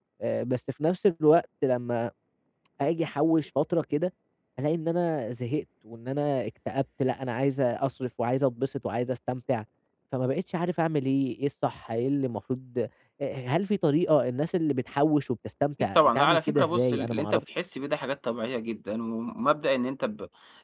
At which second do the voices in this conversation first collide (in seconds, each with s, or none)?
15.8 s